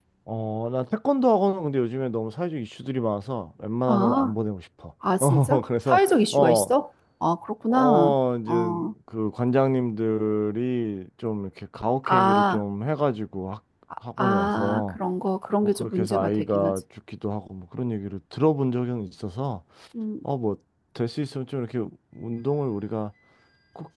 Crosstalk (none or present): present